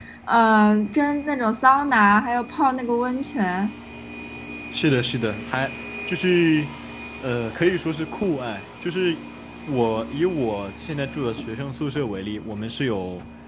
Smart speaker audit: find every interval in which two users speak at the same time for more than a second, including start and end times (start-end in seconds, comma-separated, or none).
none